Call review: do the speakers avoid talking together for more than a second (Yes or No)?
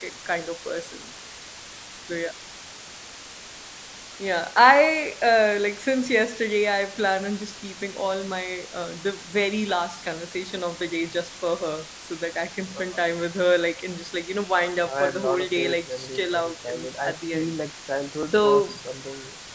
No